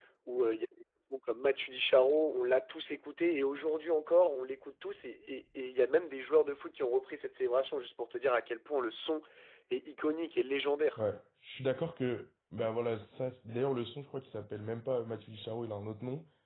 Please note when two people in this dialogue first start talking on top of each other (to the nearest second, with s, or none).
none